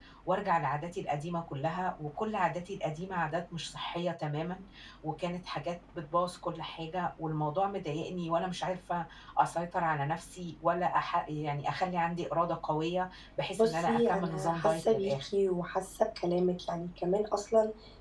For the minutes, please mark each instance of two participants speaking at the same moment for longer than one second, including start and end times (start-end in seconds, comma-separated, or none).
13.6-15.2